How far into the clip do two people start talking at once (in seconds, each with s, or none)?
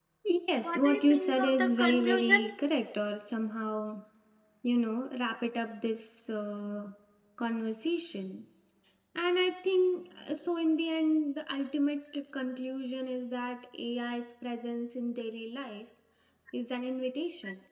0.6 s